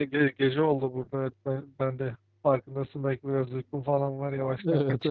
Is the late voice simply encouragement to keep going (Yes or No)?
No